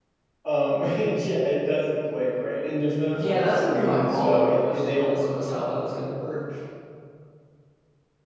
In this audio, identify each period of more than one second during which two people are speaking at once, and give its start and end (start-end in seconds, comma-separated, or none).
3.1-5.5